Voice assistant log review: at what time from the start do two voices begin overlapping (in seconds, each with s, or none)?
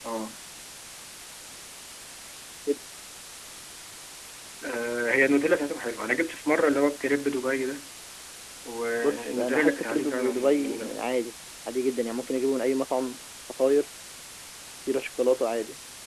9.0 s